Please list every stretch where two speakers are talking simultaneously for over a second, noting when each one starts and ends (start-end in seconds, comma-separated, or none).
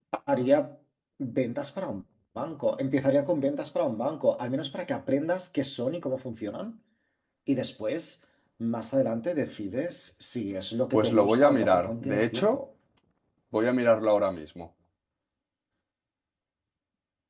10.9-12.6